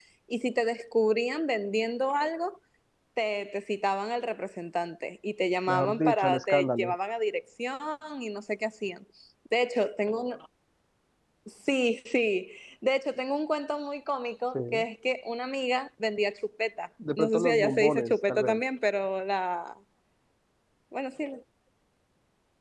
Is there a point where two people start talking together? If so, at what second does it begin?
5.7 s

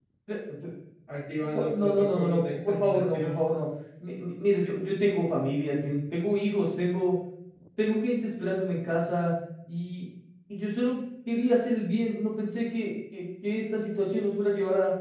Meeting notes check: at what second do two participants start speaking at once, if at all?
1.5 s

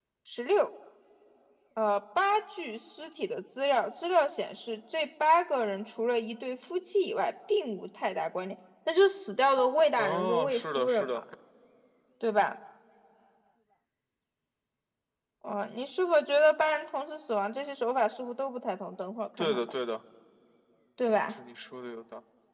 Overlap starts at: 10.0 s

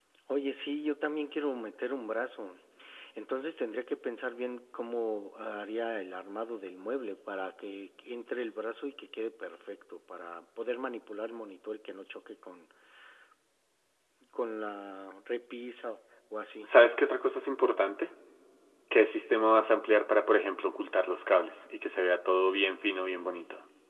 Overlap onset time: none

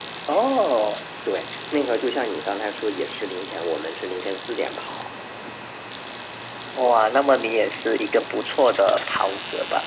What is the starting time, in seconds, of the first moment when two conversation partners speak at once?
none

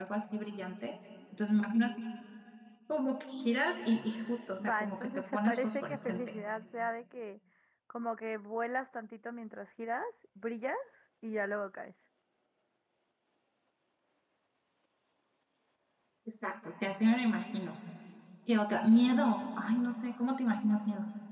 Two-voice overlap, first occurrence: 4.6 s

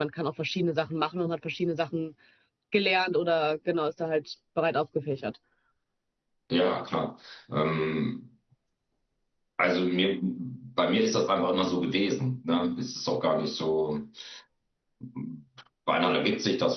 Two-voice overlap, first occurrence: none

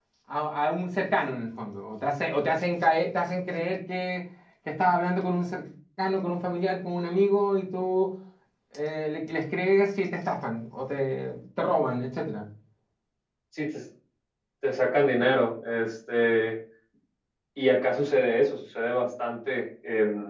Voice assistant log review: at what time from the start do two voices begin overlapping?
none

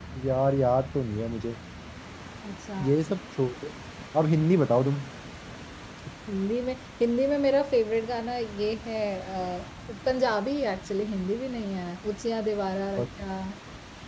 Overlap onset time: none

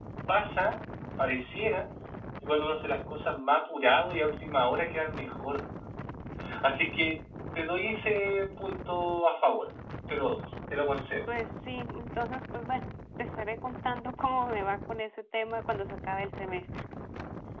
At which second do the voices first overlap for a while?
none

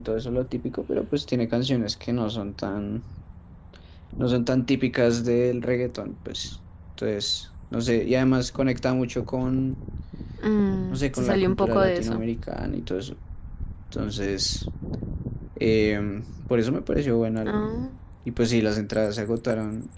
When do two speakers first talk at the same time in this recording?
10.9 s

